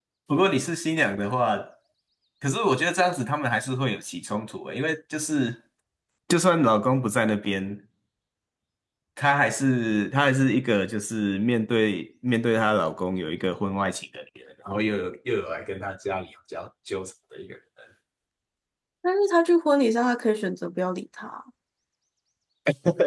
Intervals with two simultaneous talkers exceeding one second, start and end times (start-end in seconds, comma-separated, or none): none